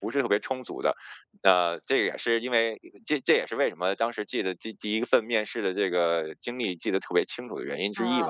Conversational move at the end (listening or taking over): taking over